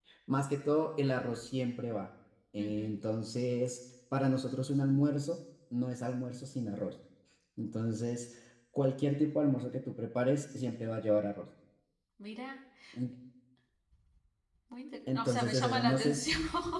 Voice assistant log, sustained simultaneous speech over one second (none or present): present